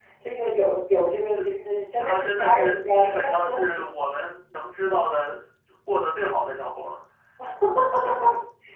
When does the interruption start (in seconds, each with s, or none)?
2.0 s